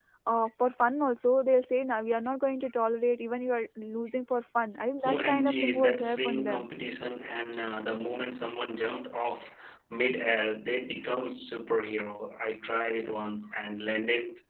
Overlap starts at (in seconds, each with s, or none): 5.0 s